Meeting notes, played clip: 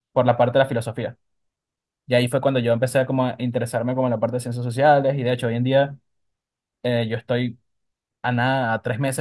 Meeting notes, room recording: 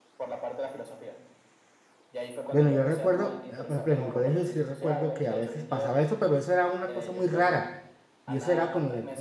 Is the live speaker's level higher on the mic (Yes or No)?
Yes